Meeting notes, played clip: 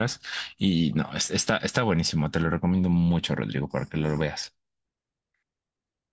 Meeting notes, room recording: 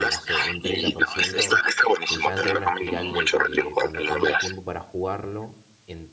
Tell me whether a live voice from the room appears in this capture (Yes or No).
Yes